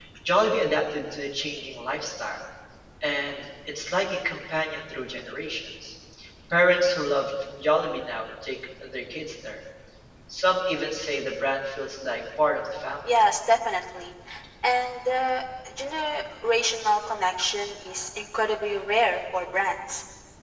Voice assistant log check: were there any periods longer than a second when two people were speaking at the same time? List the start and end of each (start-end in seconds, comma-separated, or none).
none